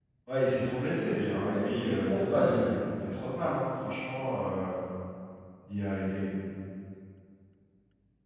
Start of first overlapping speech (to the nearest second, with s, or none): 1 s